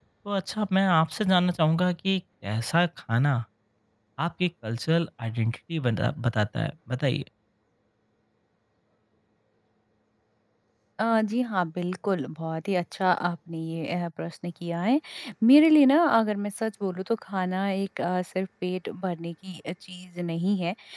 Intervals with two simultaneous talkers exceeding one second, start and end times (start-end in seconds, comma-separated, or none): none